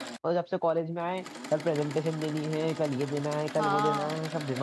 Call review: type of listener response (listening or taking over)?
taking over